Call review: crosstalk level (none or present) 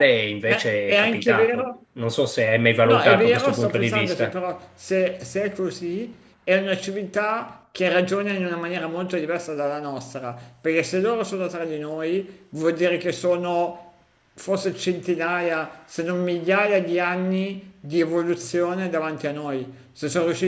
present